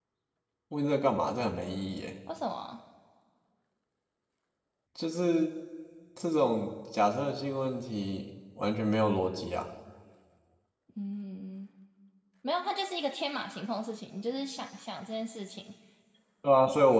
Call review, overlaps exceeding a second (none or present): none